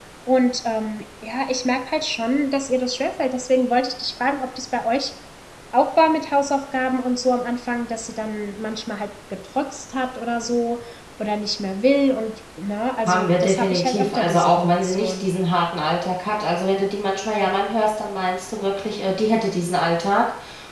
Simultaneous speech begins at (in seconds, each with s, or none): 13.1 s